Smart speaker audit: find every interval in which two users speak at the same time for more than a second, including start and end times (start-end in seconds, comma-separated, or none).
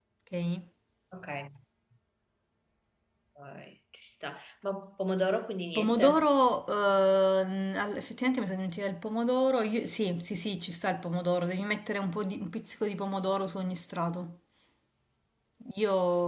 none